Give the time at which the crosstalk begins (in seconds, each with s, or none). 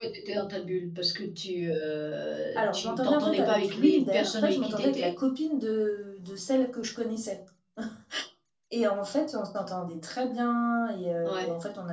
2.5 s